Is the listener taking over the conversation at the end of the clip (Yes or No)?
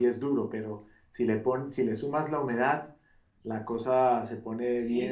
Yes